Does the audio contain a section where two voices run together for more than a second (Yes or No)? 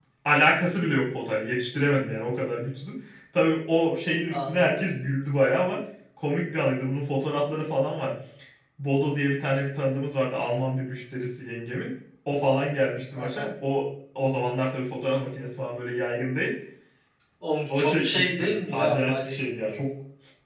Yes